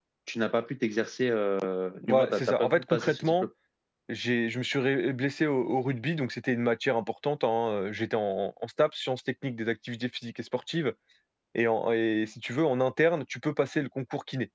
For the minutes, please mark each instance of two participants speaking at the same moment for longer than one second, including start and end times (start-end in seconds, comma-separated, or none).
2.1-3.4